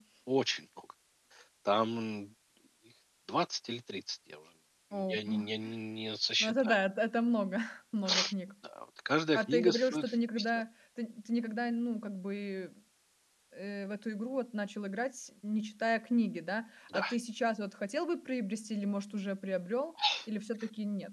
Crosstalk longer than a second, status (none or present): present